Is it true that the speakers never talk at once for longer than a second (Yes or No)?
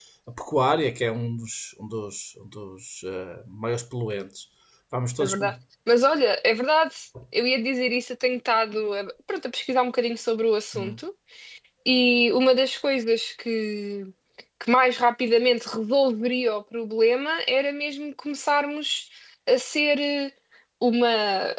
Yes